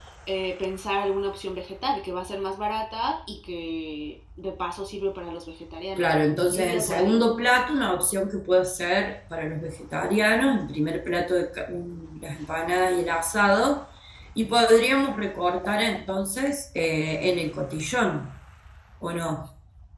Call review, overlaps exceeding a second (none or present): present